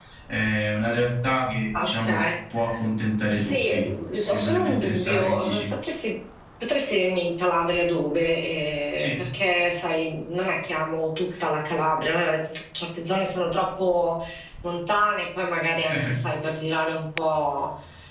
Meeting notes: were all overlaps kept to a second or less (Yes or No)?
No